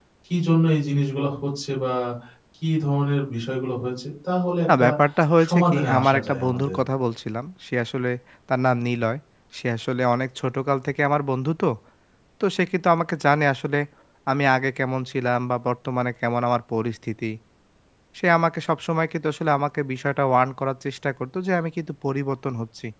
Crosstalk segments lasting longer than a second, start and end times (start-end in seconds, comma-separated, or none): 5.4-6.8